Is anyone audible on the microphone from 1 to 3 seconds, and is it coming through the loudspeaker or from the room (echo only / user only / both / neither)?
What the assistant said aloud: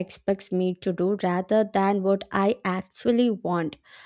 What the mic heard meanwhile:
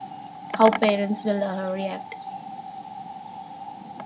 user only